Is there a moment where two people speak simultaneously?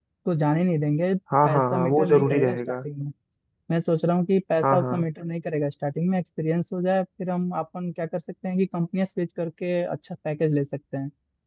Yes, from 1.4 s

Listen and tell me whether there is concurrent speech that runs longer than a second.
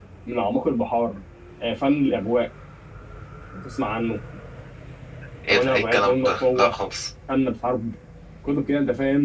Yes, from 5.5 s

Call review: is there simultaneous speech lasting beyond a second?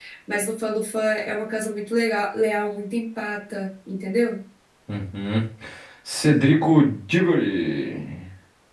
No

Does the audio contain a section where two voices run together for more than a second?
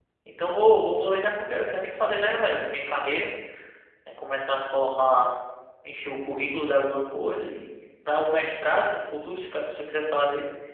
No

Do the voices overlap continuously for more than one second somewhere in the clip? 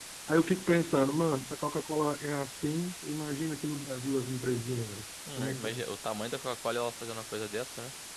No

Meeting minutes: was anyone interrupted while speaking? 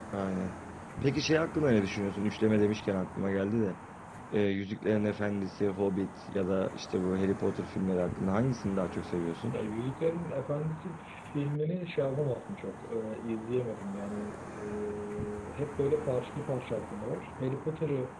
No

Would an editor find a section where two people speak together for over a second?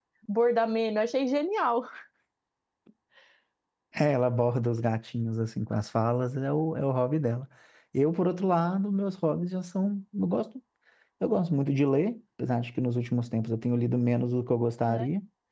No

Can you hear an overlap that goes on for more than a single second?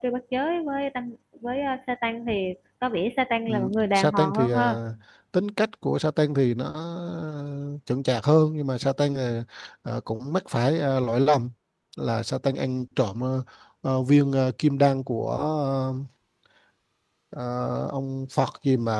Yes, from 3.5 s

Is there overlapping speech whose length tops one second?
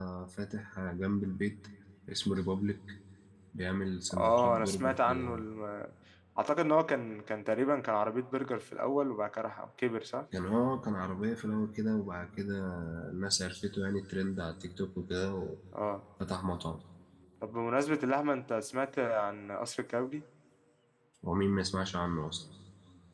Yes, from 4.1 s

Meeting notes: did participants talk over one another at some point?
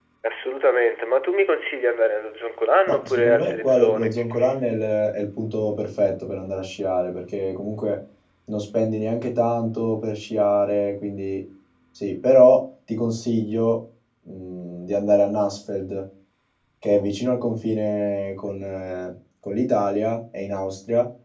Yes, from 2.9 s

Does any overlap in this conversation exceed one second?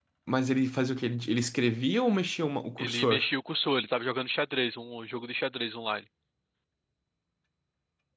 No

